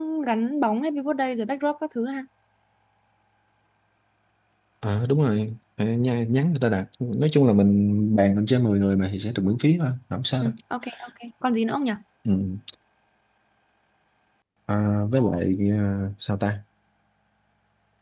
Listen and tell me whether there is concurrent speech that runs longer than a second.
No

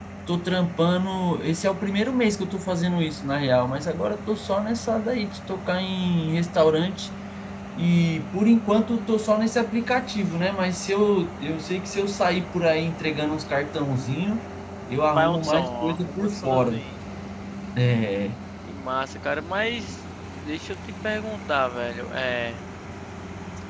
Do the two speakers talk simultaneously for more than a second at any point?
Yes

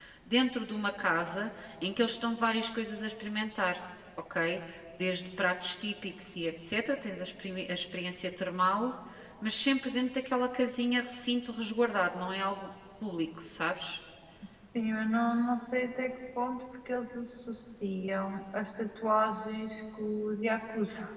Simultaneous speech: No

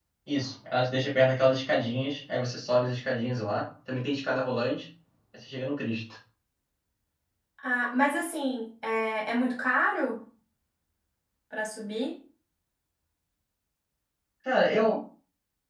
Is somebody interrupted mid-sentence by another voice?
No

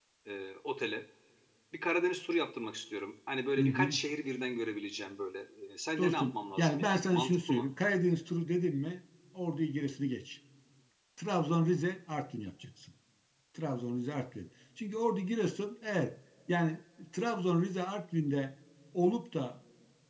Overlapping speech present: Yes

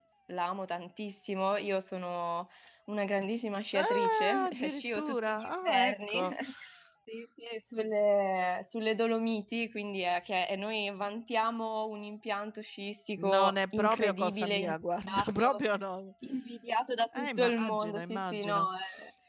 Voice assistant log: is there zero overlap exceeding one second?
No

